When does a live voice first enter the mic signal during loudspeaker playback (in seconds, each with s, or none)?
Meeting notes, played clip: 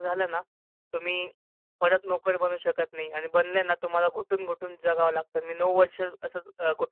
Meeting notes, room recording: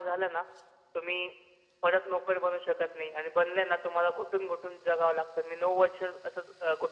none